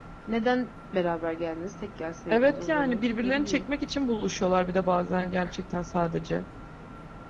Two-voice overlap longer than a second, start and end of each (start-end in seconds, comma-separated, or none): 2.3-3.6